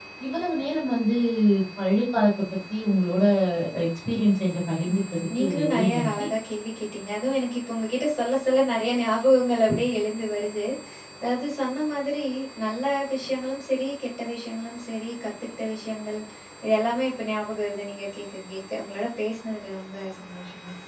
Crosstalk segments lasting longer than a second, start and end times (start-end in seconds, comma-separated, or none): 4.9-6.3